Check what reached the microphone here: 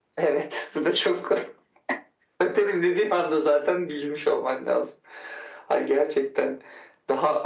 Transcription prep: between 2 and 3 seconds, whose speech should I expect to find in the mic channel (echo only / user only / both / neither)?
echo only